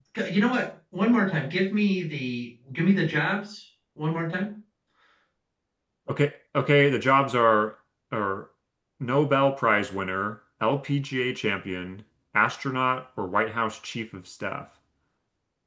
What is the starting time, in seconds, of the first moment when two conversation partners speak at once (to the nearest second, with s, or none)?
none